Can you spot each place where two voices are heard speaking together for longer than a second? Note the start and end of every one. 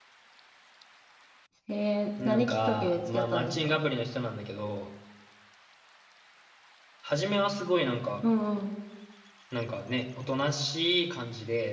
2.2-3.8

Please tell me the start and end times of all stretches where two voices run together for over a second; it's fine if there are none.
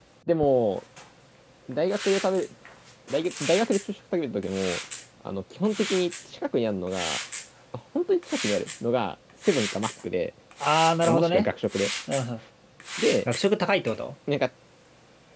none

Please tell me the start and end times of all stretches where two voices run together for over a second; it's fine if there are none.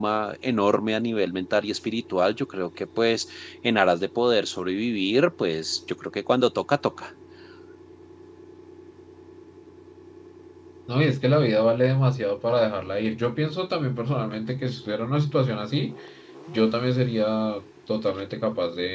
none

